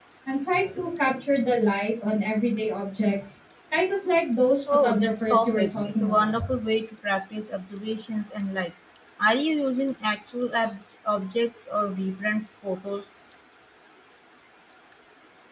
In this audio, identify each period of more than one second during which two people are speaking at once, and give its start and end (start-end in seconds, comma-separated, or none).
4.7-6.4